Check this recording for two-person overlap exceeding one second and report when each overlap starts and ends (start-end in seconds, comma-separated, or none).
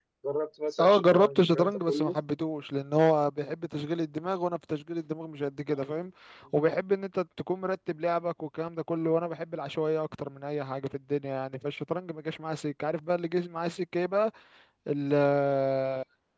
0.8-2.1